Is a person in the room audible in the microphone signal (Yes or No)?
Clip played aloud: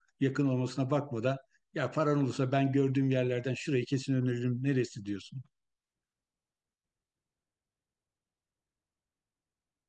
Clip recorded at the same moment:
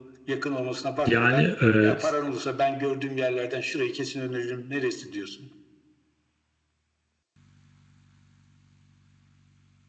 Yes